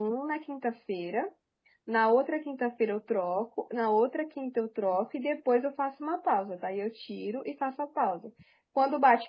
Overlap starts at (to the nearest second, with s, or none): none